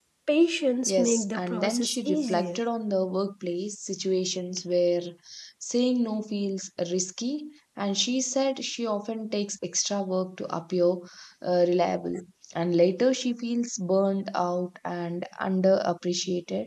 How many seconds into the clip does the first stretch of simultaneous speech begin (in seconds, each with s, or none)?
0.9 s